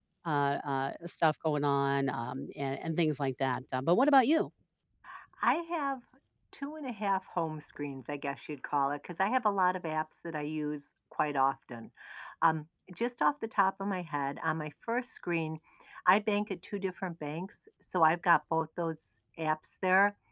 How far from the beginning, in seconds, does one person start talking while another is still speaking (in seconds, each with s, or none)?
none